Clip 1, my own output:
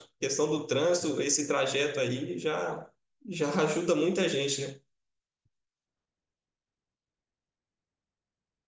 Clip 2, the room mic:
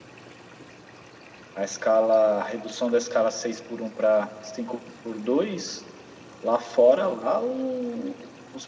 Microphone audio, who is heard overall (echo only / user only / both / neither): user only